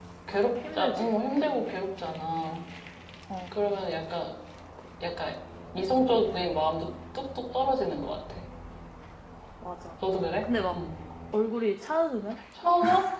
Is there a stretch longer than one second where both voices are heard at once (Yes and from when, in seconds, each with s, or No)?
No